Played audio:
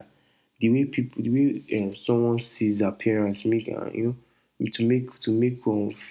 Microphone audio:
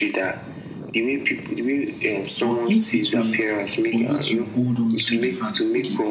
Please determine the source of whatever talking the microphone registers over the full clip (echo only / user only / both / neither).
both